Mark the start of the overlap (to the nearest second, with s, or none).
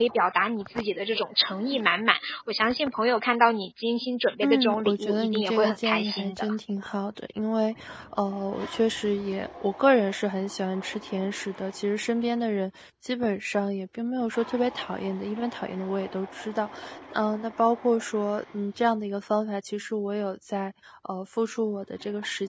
4 s